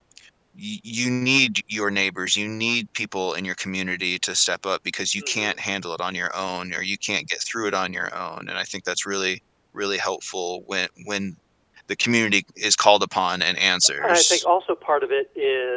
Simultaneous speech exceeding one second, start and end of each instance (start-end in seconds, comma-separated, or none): none